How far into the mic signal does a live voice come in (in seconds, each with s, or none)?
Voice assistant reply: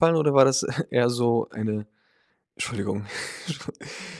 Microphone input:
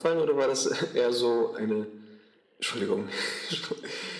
none